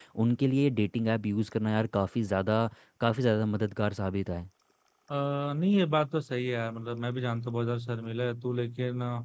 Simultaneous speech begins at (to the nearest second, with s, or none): none